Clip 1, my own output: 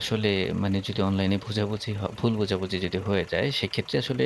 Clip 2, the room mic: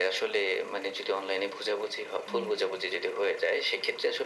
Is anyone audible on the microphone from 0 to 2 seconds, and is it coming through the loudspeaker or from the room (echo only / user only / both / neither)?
echo only